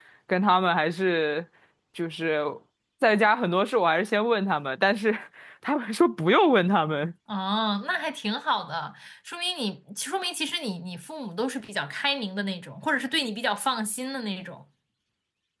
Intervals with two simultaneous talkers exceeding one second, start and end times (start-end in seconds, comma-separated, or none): none